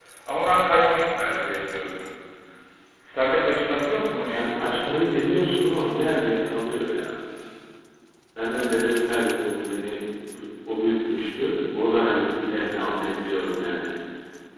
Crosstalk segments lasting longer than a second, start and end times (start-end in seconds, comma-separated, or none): none